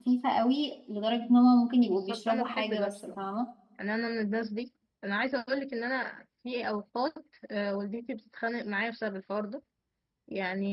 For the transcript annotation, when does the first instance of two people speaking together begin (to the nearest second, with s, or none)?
2 s